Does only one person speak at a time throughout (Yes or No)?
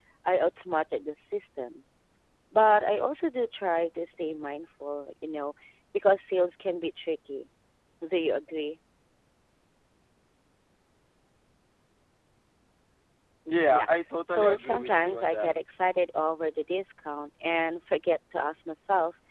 No